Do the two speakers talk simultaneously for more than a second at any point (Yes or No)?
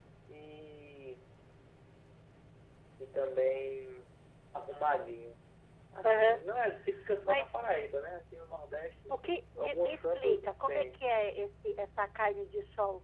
Yes